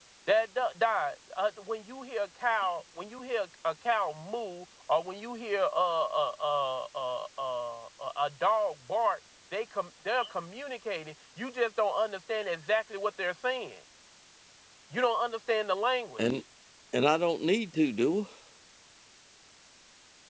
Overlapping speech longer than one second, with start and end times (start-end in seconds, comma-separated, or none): none